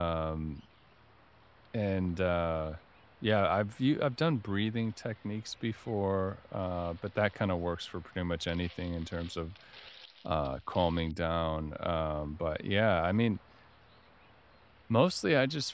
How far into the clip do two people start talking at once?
none

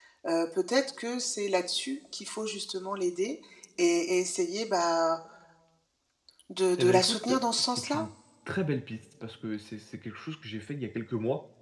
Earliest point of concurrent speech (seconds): 6.8 s

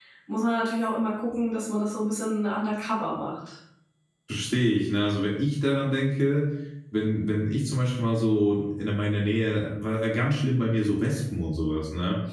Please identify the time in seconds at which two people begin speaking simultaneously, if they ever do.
none

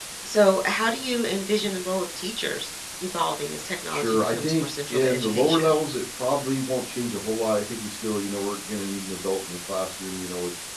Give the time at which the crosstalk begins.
3.9 s

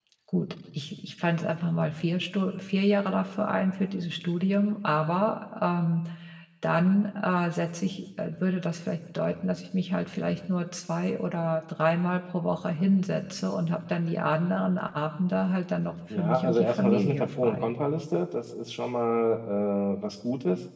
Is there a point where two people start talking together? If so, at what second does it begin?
16.1 s

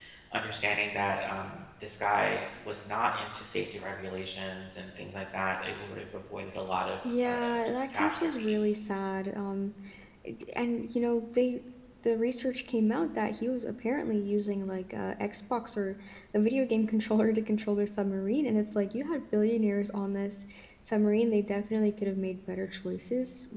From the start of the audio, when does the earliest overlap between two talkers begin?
7.0 s

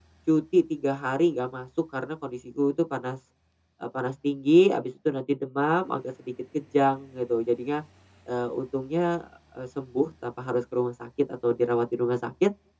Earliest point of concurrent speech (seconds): none

